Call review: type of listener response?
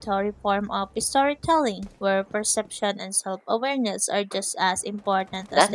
taking over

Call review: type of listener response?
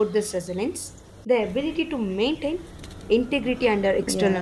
taking over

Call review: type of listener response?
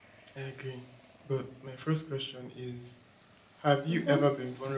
listening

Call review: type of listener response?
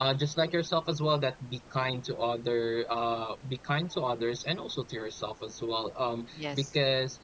listening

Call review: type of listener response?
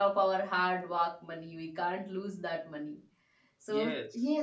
listening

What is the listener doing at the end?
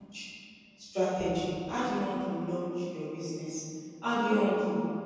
listening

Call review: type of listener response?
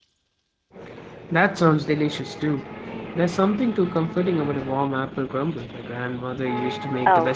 taking over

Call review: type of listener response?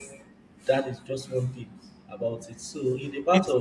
listening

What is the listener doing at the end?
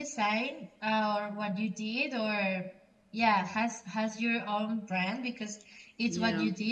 listening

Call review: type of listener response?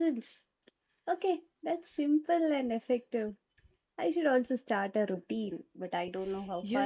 taking over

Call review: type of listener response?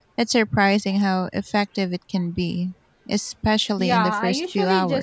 taking over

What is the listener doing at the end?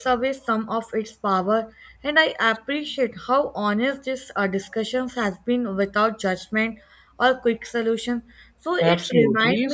taking over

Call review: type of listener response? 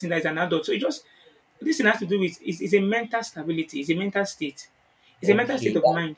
taking over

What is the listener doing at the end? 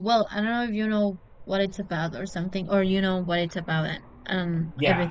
taking over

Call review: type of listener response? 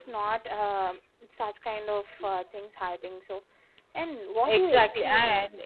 taking over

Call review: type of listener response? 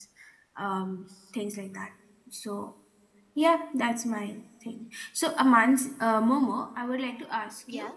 listening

